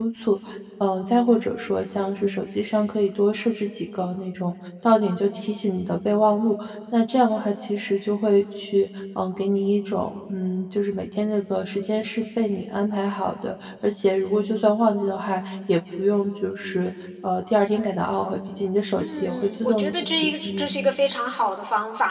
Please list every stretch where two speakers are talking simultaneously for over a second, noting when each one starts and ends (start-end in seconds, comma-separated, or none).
19.0-20.7